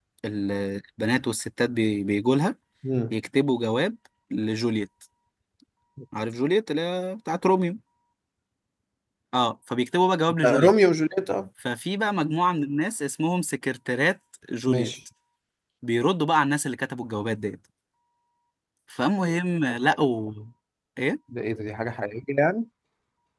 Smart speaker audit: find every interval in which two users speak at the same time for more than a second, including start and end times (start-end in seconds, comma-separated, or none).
none